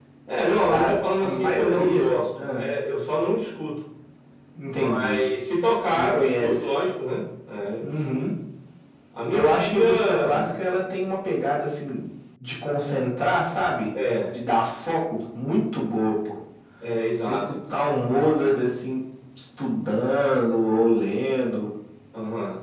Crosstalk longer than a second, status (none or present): present